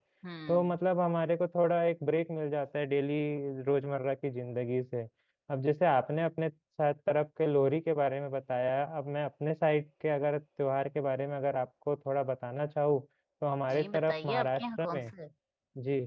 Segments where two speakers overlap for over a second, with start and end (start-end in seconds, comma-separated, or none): 13.7-15.1